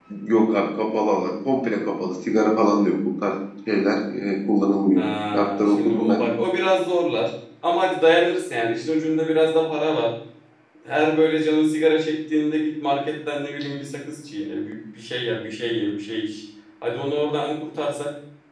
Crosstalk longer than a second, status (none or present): present